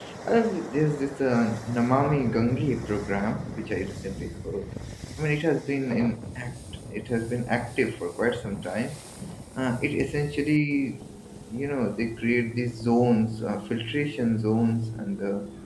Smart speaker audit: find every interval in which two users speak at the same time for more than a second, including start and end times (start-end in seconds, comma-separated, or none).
none